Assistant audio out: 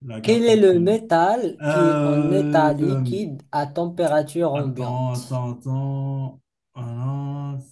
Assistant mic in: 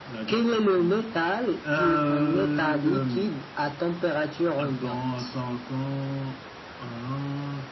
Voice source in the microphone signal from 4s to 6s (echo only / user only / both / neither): echo only